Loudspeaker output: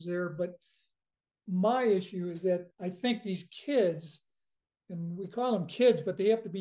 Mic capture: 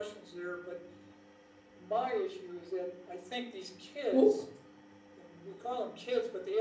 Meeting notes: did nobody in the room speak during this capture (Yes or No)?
No